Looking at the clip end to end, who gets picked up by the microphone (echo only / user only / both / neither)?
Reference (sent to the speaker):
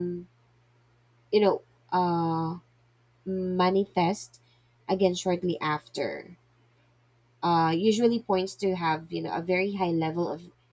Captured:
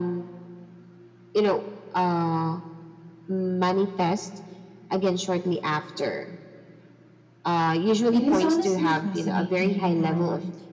both